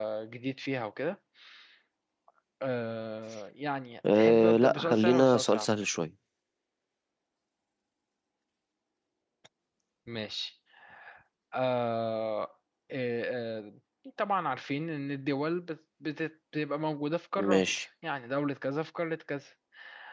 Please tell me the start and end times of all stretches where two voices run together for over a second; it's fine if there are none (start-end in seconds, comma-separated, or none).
4.1-5.7